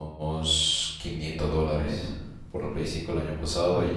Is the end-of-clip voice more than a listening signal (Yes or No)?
No